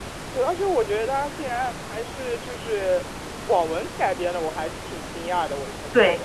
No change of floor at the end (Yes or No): No